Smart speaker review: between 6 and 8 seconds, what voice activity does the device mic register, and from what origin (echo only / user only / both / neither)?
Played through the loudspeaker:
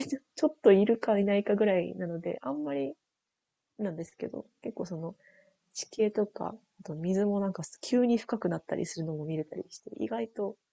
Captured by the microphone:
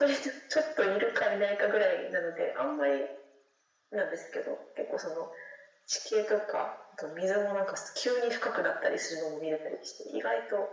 echo only